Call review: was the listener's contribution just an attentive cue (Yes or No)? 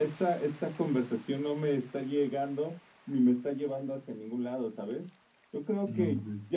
Yes